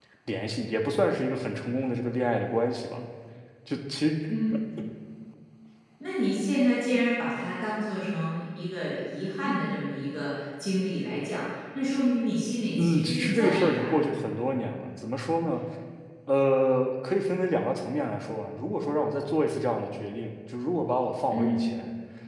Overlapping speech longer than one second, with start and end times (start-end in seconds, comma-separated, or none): 12.8-14.1